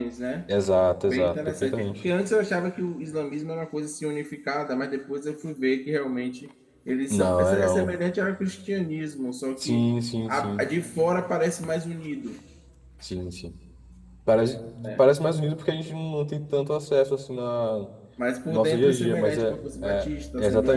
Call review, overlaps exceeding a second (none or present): present